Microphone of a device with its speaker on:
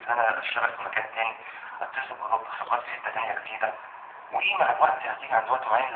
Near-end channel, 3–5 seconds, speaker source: echo only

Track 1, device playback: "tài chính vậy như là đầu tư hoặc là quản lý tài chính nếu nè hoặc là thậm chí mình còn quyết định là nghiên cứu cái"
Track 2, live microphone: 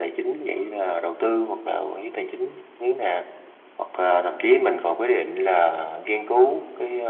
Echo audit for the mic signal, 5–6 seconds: echo only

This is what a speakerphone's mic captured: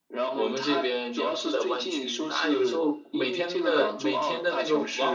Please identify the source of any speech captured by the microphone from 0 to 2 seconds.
both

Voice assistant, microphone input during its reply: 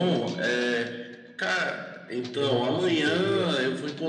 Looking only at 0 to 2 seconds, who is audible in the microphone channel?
echo only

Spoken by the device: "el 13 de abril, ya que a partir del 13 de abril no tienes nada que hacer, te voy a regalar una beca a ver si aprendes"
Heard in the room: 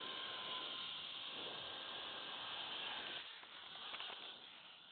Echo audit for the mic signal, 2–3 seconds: neither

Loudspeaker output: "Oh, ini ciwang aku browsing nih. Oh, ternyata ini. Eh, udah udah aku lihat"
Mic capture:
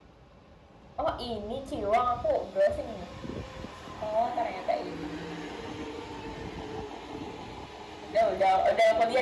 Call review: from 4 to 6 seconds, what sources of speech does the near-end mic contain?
echo only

